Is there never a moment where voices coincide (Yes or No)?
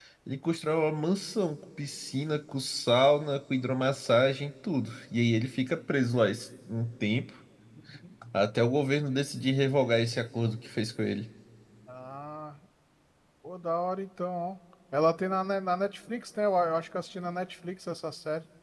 Yes